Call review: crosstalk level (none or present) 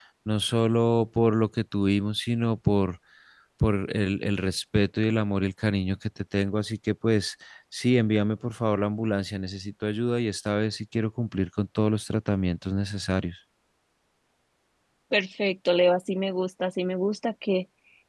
none